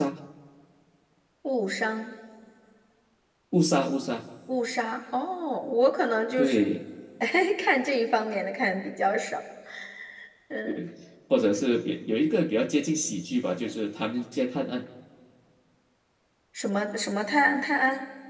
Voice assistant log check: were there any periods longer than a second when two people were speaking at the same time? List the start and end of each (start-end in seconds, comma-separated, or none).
none